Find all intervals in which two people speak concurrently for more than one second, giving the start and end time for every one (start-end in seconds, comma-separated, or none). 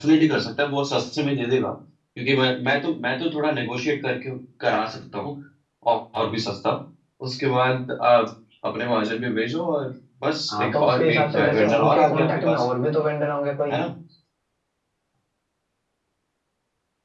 10.5-12.6